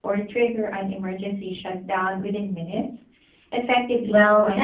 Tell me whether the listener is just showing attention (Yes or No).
No